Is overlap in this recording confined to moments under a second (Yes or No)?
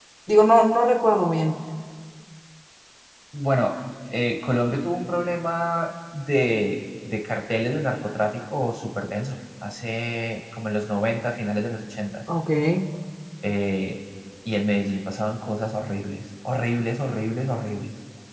Yes